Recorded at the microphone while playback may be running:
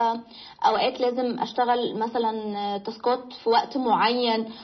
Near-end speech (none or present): none